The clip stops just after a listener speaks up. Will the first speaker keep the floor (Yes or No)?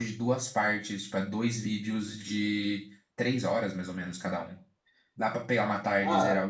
No